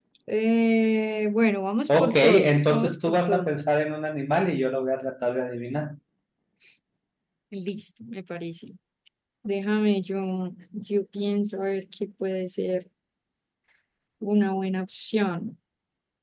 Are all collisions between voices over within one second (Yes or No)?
No